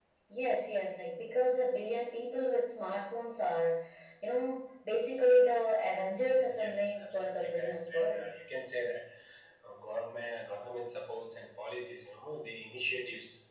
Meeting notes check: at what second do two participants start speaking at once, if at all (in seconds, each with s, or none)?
6.5 s